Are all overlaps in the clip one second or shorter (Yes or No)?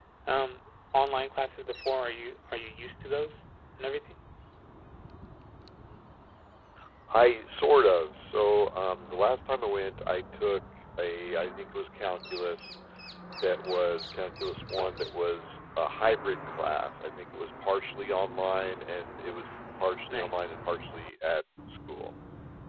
Yes